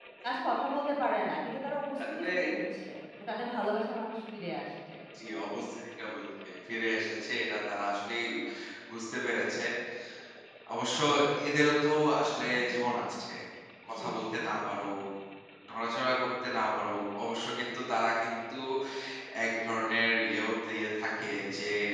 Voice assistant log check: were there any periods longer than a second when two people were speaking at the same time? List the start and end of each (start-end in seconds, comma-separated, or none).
none